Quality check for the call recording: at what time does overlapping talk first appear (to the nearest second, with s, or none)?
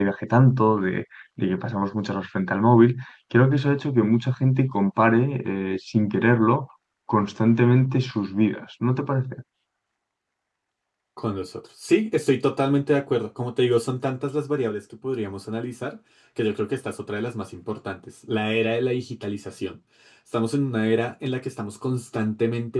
none